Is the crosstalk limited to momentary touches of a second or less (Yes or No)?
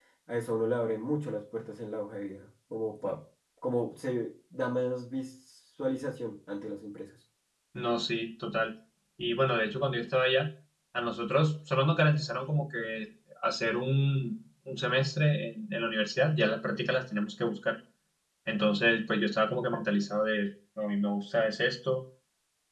Yes